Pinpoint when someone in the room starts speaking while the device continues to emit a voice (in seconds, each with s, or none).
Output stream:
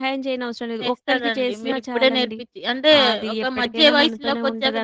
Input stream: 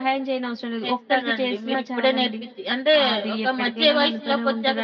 none